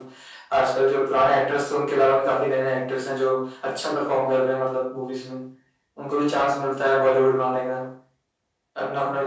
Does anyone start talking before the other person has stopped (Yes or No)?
No